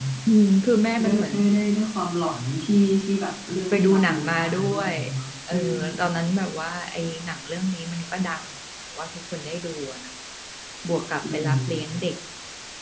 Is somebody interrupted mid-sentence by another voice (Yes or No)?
Yes